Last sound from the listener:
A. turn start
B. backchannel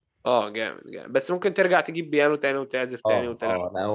A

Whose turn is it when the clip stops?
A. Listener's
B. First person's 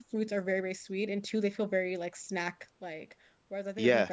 B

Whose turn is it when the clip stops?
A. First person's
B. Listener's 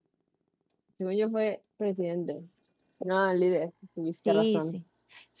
B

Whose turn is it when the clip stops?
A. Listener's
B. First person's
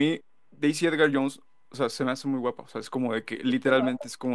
B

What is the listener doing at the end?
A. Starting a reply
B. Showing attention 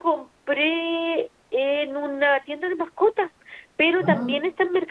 B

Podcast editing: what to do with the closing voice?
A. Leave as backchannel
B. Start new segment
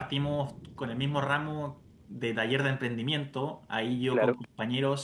A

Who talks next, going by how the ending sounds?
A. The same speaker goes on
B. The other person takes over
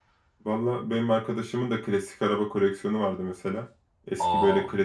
A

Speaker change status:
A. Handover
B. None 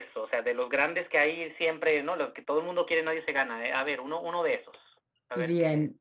A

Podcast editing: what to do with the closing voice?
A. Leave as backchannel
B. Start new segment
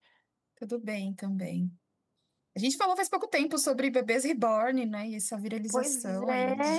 B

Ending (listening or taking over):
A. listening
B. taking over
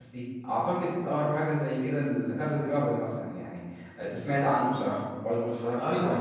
B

